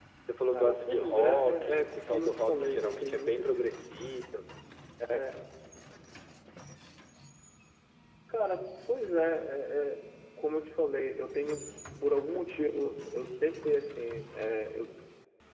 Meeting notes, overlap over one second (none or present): present